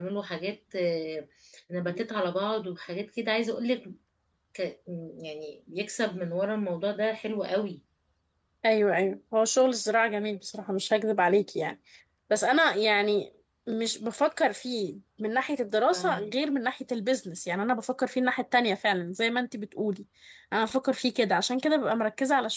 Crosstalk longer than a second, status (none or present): none